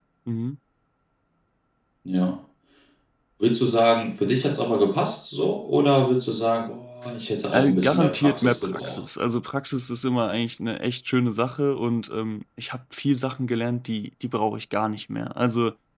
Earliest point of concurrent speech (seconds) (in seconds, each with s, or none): 7.4 s